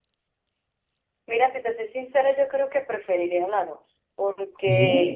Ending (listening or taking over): listening